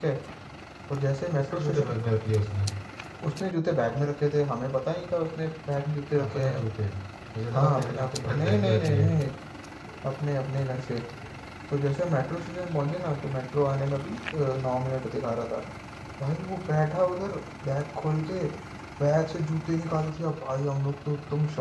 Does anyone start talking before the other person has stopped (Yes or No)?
Yes